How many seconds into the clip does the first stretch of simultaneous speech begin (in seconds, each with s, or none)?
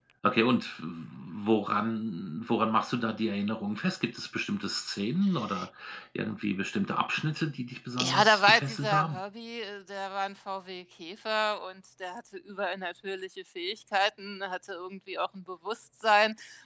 8.0 s